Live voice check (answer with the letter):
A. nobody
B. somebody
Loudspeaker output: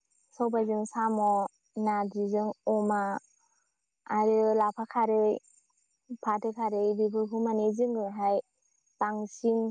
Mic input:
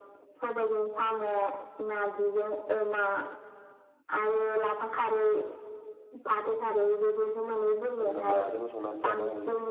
B